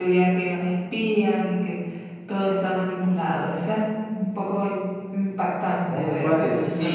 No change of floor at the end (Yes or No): No